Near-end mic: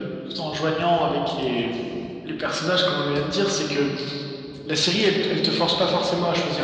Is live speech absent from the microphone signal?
Yes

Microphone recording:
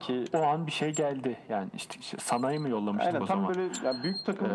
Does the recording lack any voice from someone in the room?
No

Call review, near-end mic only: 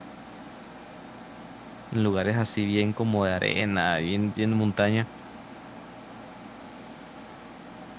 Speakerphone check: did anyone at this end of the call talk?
Yes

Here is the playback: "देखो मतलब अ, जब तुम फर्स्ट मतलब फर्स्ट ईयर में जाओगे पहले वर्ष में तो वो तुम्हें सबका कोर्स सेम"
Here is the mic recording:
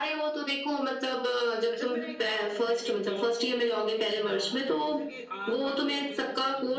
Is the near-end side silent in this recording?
No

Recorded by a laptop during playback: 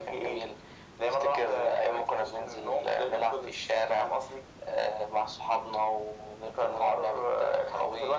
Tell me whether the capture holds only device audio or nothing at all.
Yes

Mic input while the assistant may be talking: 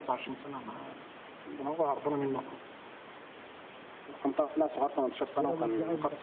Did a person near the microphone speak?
Yes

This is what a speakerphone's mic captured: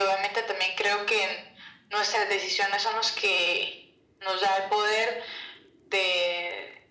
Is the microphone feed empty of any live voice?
Yes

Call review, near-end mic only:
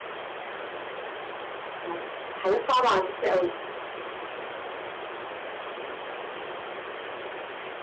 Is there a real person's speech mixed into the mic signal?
Yes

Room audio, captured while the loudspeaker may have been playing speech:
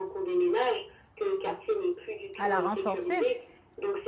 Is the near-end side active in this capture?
Yes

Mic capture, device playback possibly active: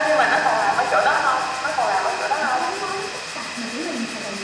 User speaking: Yes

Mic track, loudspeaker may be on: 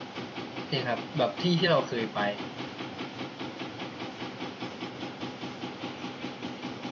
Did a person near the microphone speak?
Yes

